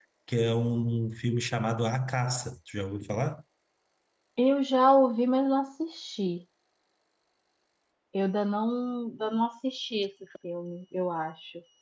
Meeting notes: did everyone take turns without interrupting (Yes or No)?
Yes